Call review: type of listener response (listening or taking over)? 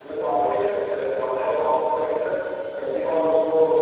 listening